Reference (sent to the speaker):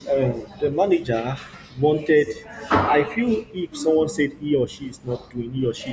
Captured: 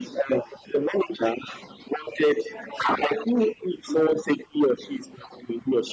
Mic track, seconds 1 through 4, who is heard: echo only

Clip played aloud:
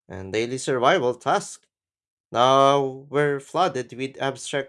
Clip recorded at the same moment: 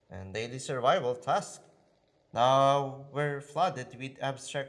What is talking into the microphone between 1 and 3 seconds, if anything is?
echo only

